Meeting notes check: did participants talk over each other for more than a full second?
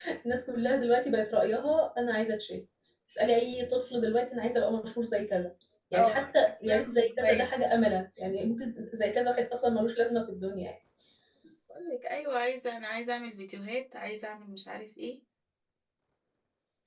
Yes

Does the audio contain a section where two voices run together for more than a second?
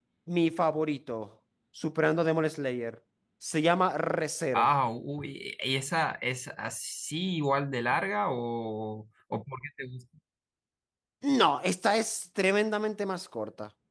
No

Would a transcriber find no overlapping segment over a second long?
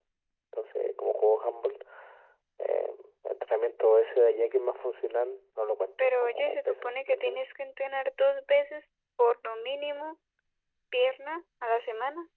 No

